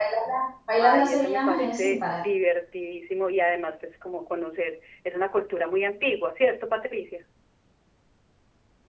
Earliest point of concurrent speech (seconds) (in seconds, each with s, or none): 0.8 s